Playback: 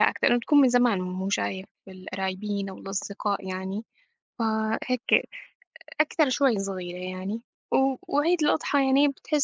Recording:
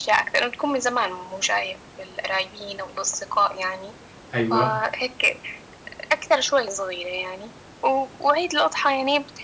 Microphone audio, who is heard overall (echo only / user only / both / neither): both